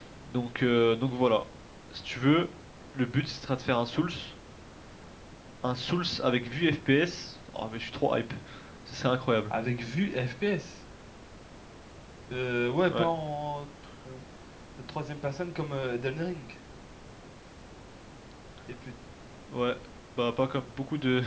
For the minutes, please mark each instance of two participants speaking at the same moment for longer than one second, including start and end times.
none

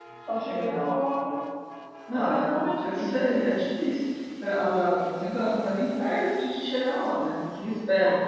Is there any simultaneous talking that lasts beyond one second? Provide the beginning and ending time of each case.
2.1-3.4

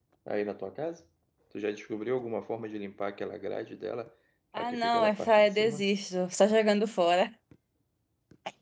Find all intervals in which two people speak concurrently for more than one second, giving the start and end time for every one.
4.6-5.8

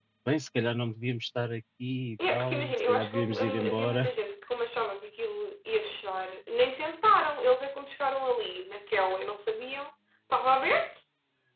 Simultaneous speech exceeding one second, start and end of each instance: 2.3-4.1

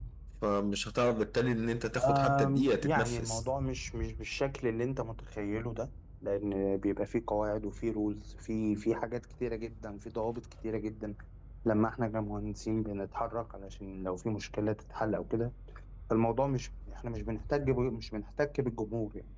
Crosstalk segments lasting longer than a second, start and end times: 2.0-3.4

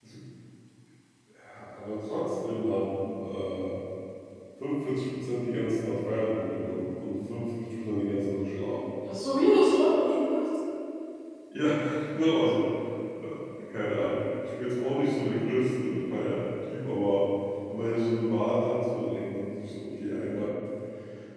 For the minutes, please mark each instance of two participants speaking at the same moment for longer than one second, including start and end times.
none

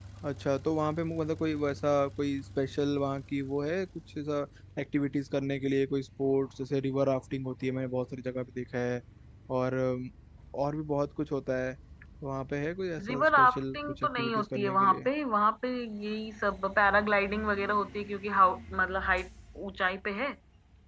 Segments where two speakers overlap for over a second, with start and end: 13.1-15.1

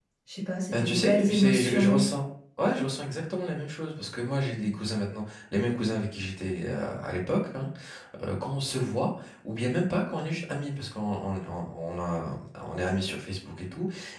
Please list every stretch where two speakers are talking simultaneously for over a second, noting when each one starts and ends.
0.7-2.0

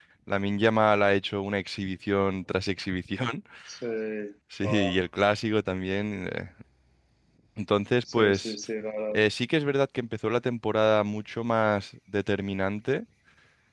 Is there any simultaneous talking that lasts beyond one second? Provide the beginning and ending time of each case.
none

